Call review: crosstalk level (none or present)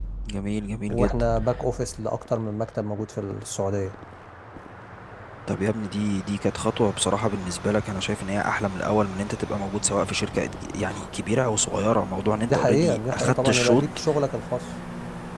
present